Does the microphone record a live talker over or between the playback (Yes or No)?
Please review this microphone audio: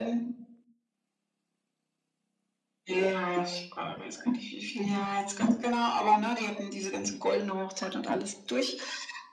No